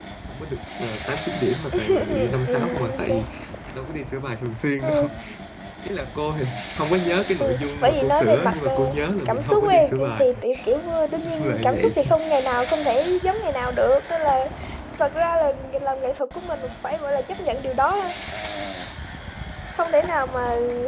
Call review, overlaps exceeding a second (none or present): present